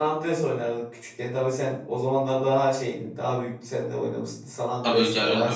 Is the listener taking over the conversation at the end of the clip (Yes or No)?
Yes